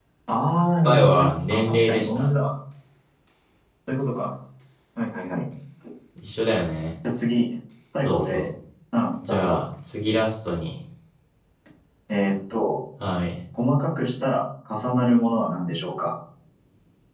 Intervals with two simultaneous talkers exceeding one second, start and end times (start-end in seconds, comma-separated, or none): 0.8-2.3